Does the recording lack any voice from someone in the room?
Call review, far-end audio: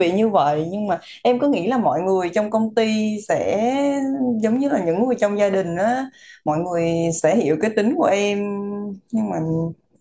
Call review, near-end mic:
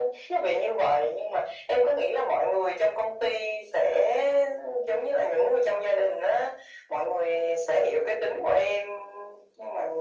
Yes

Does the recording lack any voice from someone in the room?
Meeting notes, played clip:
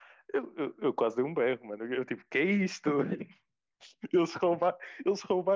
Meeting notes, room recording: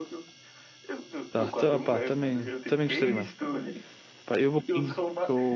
No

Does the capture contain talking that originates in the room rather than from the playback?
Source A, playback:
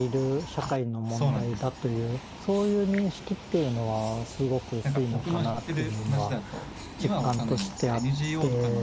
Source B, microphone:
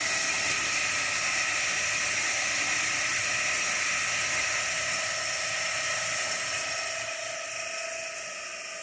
No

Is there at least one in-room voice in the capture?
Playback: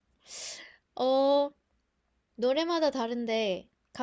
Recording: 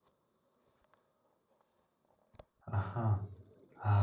Yes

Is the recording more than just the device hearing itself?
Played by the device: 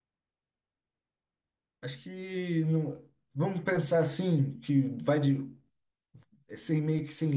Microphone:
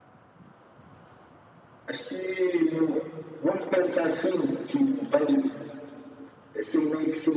No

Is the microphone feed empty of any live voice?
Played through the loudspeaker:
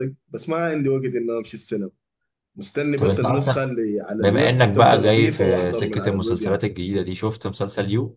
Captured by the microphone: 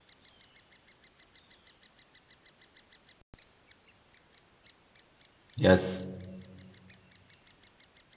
No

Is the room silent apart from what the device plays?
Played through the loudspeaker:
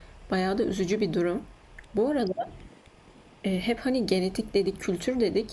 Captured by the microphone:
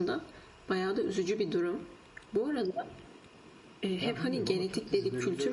No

